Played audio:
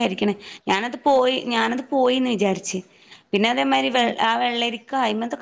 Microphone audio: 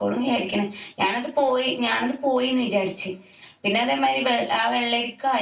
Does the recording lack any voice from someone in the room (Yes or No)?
Yes